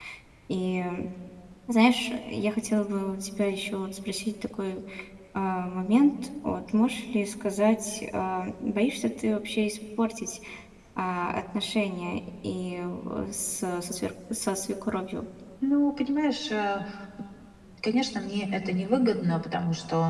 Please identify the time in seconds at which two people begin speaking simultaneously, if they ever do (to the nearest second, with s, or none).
none